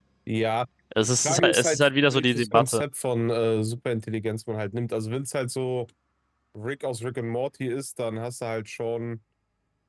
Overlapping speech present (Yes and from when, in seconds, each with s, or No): Yes, from 1.0 s